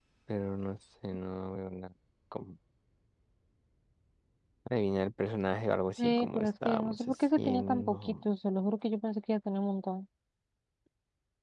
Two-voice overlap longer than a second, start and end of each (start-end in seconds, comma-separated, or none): 6.0-8.1